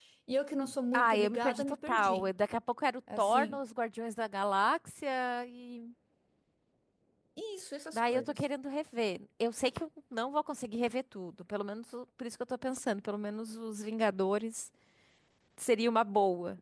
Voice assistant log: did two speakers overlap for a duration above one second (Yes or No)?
Yes